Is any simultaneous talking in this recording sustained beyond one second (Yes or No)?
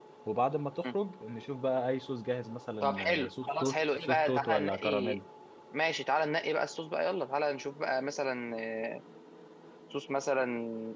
Yes